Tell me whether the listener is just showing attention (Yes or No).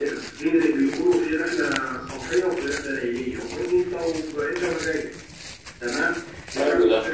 Yes